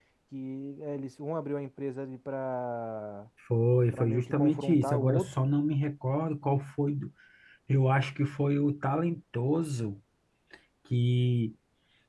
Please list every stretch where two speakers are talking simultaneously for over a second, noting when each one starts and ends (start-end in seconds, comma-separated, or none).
3.9-5.5